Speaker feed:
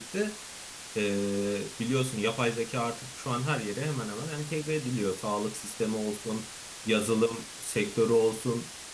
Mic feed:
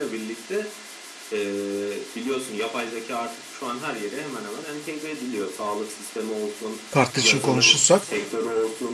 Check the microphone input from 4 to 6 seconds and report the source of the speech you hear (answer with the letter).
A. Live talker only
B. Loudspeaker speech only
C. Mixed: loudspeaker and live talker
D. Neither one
B